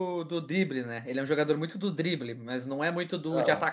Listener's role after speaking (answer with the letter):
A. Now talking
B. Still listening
B